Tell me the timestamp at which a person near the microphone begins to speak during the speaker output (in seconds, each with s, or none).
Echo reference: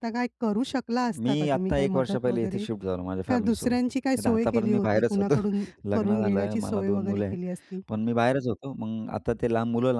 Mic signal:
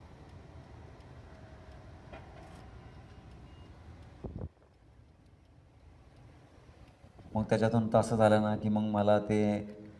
7.3 s